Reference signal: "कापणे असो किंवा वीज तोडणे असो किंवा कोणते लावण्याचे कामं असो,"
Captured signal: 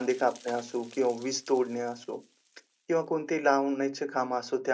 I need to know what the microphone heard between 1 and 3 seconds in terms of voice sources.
echo only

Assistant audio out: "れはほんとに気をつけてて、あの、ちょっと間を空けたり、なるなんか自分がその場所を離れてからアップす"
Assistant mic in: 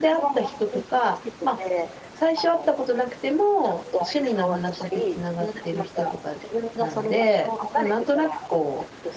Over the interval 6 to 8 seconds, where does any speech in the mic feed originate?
both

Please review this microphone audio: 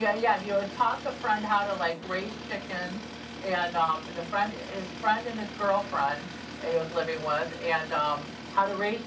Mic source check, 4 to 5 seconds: echo only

